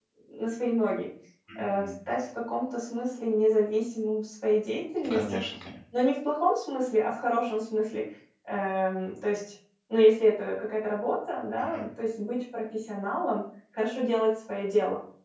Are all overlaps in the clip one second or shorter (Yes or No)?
Yes